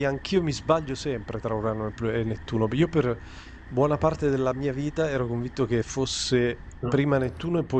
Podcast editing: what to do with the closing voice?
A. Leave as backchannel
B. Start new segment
A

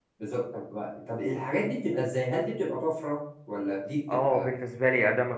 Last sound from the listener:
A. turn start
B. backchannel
A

